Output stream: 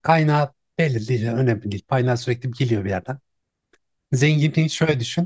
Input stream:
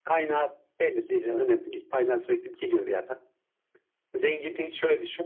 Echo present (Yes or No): Yes